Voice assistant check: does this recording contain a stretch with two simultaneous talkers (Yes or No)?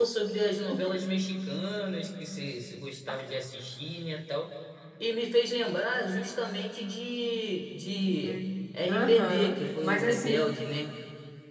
Yes